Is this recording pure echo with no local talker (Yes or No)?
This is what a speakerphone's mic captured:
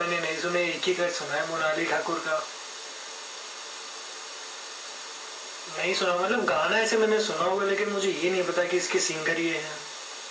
Yes